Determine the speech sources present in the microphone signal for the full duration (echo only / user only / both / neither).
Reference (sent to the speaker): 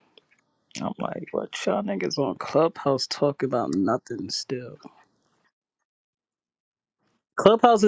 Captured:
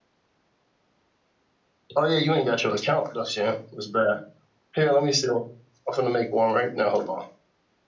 user only